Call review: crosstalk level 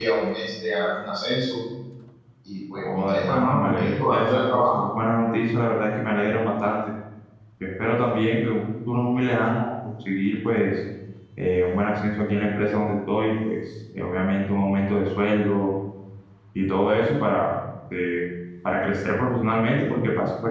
present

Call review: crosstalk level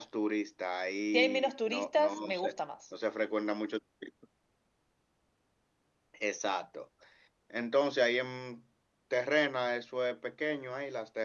present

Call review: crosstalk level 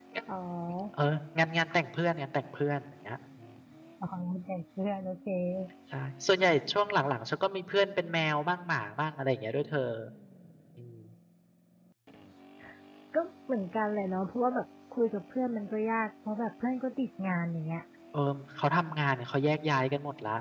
none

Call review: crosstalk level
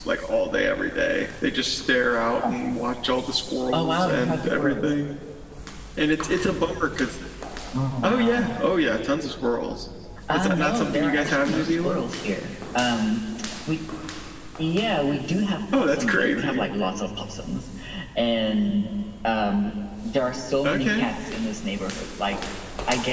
present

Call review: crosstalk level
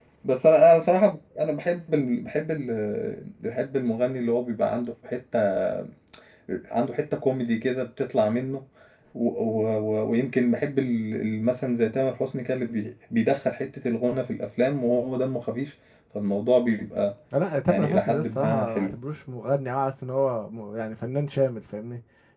present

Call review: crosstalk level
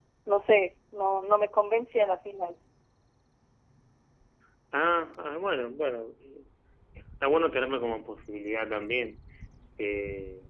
none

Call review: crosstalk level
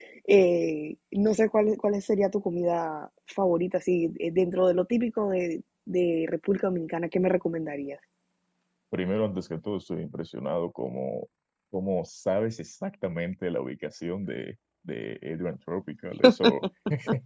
none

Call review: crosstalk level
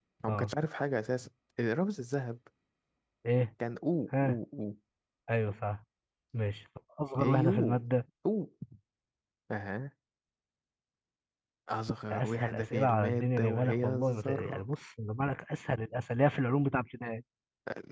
present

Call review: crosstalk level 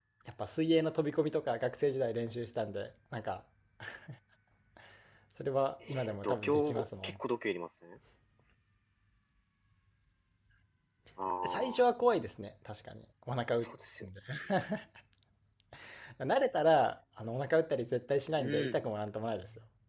present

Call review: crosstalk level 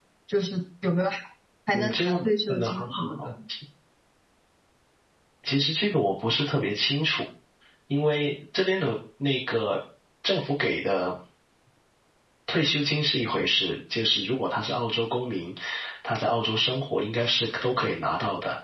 present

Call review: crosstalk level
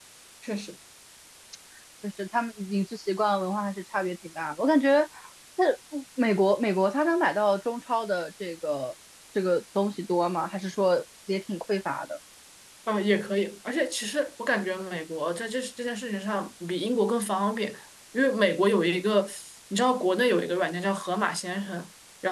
none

